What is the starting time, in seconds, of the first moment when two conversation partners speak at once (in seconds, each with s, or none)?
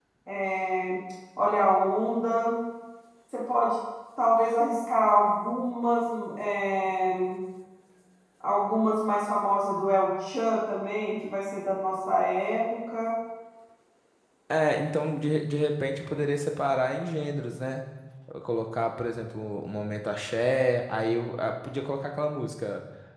none